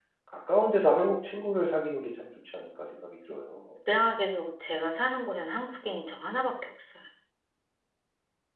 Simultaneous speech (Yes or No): No